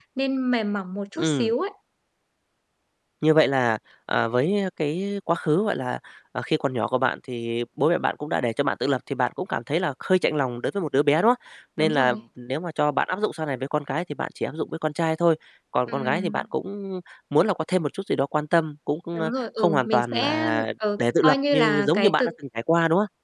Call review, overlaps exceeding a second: present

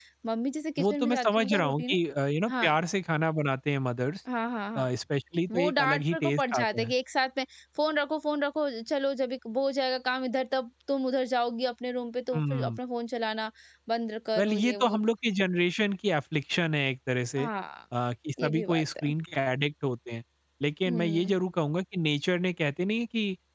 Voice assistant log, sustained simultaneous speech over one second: present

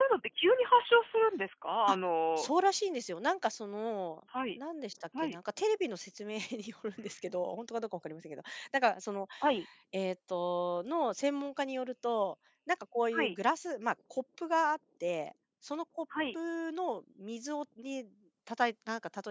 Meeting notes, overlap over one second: none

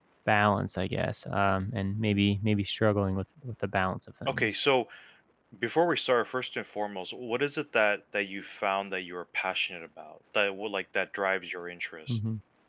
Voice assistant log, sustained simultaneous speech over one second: none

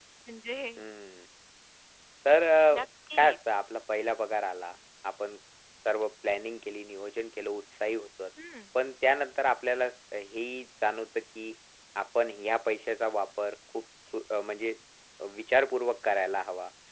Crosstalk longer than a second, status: none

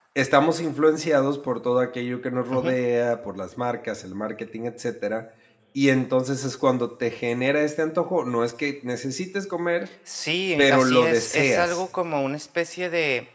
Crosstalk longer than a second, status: present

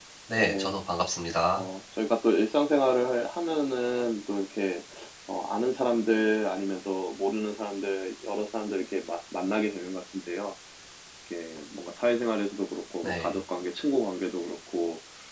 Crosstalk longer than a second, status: none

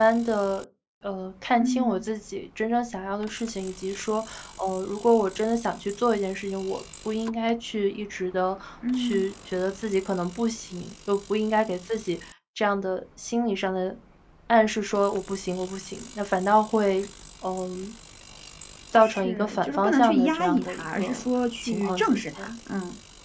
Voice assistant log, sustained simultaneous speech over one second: present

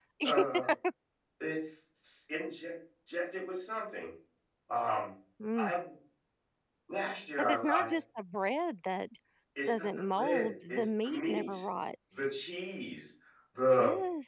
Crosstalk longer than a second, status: present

